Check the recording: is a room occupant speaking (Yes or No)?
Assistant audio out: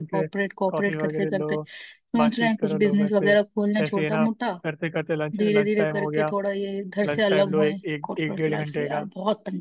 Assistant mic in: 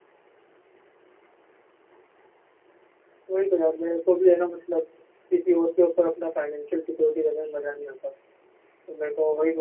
Yes